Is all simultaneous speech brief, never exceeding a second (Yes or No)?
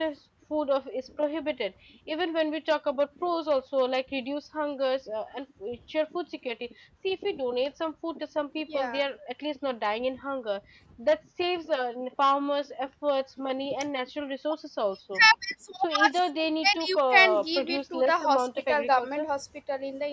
No